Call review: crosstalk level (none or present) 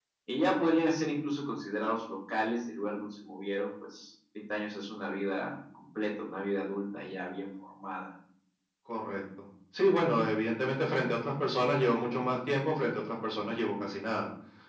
none